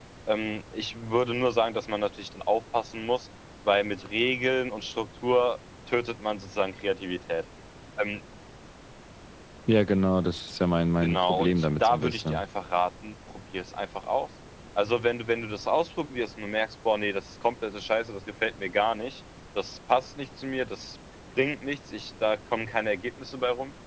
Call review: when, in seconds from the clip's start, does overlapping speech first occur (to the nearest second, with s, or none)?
11 s